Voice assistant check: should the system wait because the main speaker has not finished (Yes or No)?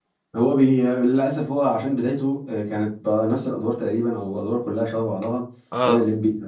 Yes